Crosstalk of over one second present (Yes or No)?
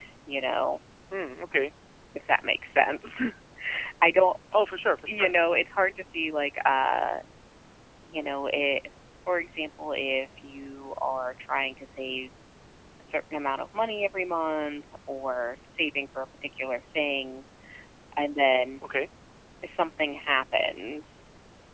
No